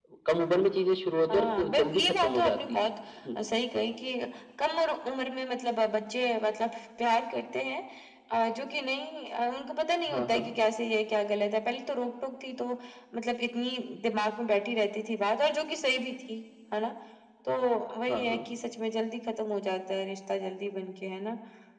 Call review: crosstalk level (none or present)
present